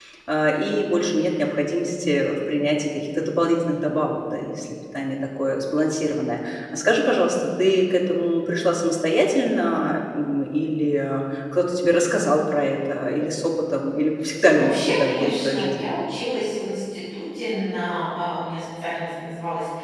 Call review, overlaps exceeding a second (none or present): present